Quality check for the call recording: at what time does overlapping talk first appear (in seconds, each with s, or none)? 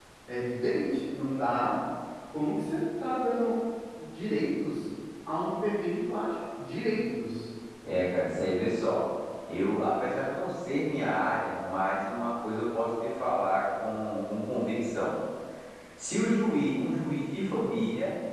none